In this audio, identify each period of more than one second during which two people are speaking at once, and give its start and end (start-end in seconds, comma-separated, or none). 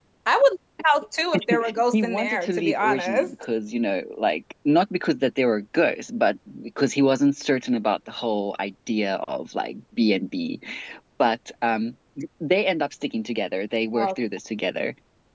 1.9-3.3